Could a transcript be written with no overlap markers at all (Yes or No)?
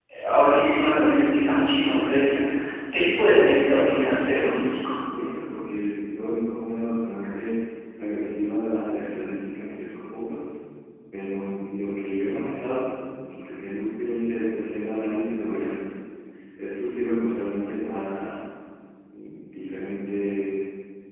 No